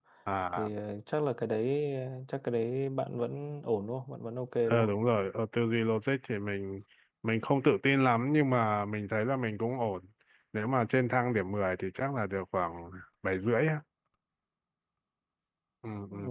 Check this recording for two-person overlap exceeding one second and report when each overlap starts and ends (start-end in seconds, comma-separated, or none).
none